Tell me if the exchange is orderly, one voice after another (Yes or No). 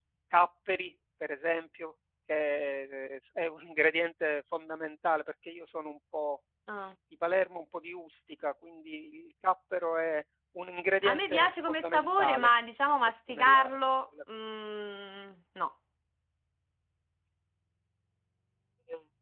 No